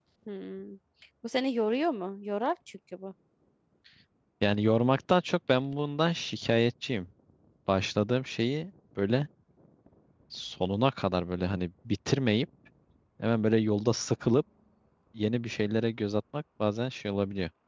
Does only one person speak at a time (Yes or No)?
Yes